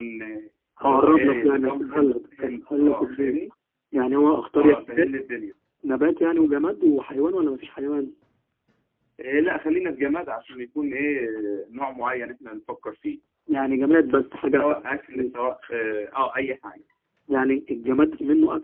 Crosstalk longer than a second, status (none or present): present